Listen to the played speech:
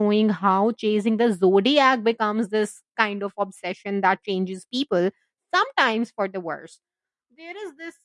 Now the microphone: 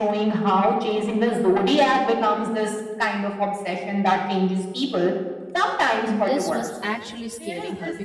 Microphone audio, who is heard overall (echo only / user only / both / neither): both